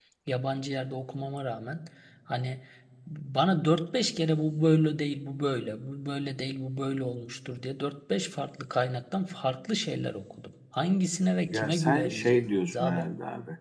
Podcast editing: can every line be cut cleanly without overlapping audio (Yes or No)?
No